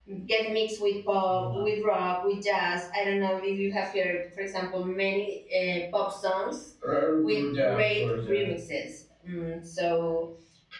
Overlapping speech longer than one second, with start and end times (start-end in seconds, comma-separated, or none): 7.2-8.5